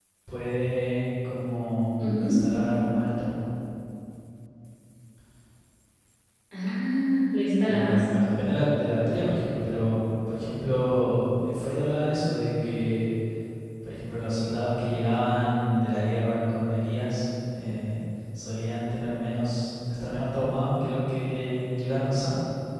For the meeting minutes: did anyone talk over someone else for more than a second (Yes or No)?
No